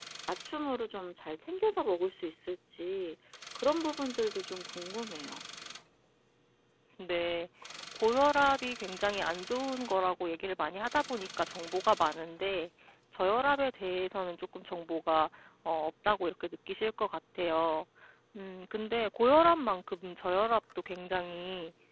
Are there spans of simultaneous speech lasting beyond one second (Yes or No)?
No